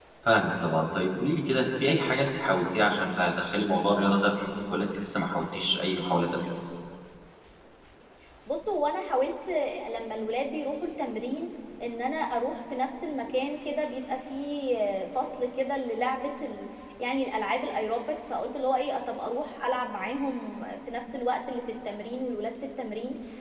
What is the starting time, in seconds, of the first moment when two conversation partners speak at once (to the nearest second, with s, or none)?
none